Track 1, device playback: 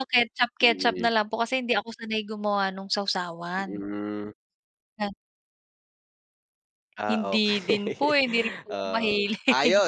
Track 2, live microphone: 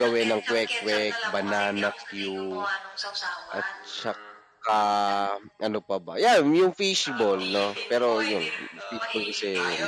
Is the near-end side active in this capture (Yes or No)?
Yes